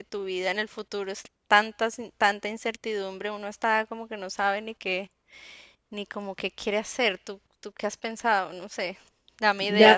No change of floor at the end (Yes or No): No